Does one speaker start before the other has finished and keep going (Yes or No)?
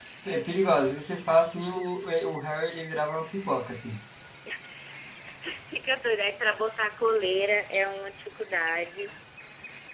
No